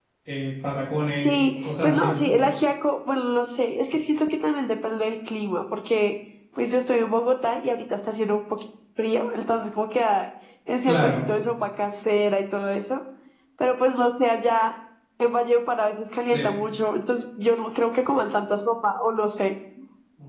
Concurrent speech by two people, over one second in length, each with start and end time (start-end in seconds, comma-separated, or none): 1.1-2.3